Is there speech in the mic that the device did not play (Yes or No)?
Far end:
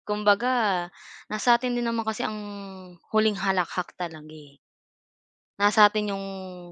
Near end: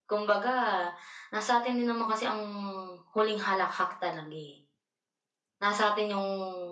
No